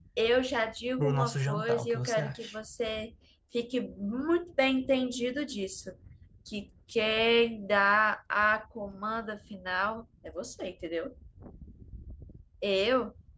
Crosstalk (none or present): present